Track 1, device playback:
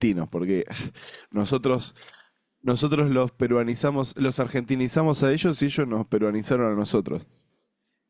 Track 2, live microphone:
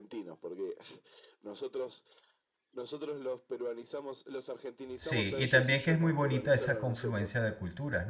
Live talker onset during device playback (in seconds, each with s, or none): 5.0 s